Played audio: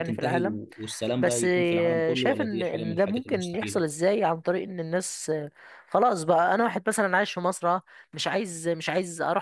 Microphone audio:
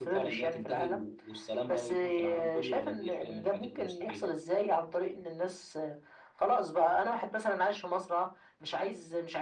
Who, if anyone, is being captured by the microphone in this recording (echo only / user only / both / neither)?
echo only